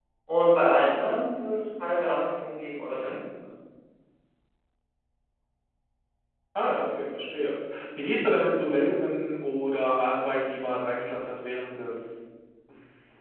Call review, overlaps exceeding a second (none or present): none